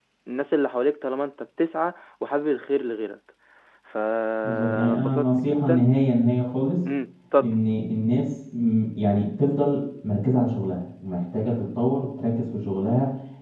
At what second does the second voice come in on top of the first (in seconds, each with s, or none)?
4.4 s